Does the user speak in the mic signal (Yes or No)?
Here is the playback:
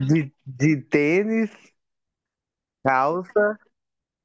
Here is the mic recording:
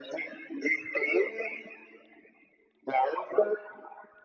No